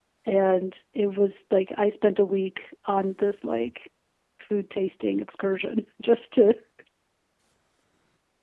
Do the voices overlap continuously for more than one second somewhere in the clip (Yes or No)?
No